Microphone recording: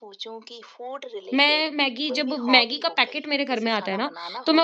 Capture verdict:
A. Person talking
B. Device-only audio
A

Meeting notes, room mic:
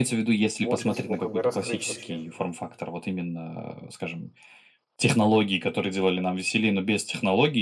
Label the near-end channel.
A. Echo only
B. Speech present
B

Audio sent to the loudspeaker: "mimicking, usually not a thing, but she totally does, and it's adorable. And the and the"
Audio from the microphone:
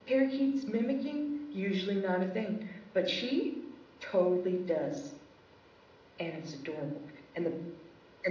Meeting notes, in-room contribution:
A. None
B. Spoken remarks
A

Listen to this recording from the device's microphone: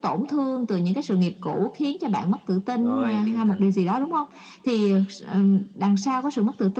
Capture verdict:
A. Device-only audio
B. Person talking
B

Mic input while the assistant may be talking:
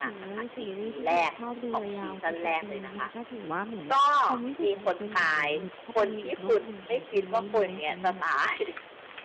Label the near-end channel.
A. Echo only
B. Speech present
B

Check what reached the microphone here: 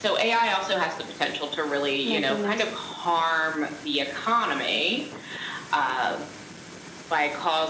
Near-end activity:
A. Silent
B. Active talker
B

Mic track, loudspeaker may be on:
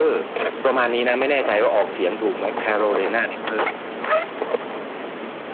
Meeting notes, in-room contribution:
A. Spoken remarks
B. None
B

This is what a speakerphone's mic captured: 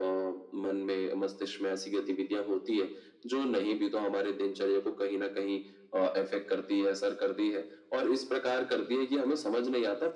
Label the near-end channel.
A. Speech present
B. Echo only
B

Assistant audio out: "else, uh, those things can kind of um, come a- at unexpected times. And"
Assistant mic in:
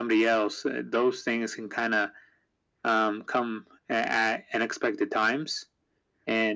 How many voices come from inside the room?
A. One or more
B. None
B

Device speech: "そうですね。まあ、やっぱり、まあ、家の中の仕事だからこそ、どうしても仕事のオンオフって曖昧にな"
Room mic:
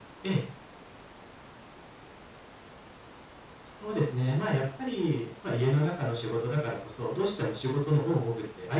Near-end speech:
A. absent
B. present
A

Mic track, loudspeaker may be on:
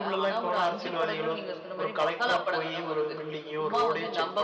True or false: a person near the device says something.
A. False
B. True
A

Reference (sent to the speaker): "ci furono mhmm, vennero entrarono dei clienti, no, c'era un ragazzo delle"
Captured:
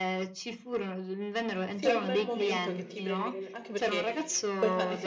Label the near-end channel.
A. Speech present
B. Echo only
A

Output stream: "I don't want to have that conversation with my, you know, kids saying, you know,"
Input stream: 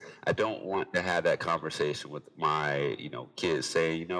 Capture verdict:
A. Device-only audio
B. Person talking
A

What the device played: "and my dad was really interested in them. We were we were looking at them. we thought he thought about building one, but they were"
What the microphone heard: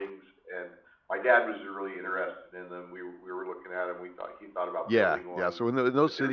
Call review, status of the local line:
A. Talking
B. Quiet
A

